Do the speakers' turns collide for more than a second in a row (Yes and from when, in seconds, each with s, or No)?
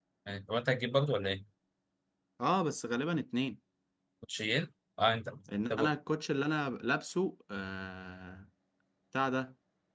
No